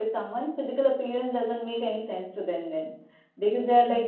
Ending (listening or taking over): listening